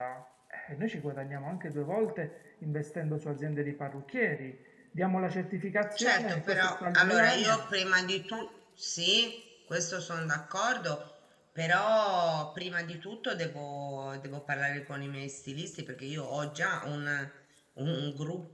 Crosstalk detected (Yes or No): Yes